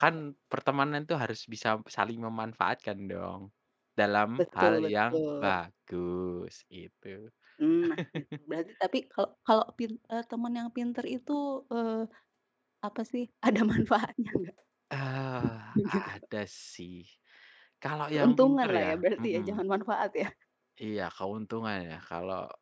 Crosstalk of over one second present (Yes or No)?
Yes